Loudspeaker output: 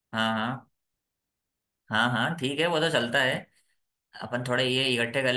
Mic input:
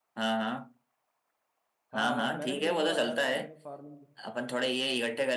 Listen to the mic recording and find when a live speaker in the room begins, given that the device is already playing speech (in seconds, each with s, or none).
1.9 s